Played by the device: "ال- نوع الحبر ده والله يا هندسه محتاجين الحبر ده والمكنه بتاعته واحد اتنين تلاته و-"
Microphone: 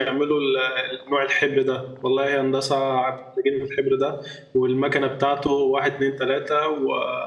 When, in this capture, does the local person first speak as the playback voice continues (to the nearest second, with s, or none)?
none